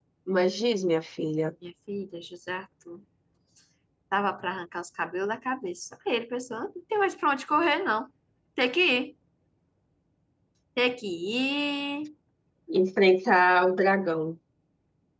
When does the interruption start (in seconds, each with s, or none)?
none